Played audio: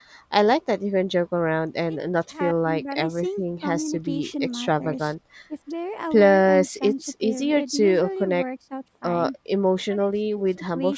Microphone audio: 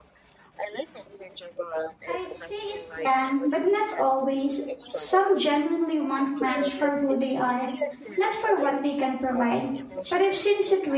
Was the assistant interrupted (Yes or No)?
Yes